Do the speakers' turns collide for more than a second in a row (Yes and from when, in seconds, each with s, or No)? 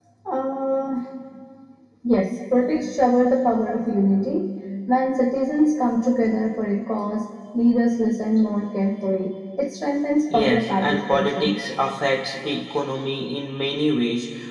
Yes, from 10.3 s